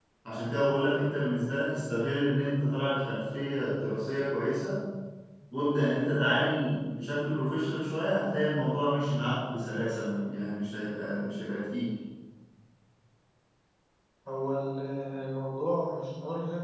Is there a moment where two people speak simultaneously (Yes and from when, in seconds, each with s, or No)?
No